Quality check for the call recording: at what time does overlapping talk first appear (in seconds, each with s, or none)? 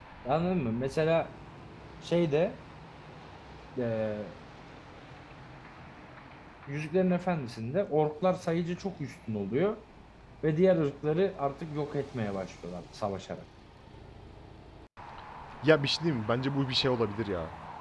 none